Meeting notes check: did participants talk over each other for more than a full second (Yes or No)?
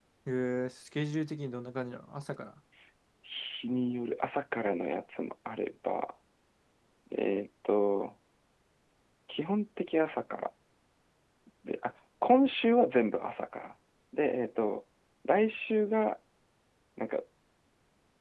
No